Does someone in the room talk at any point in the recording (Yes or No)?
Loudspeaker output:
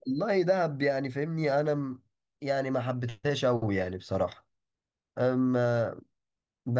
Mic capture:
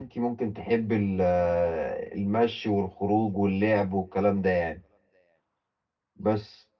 Yes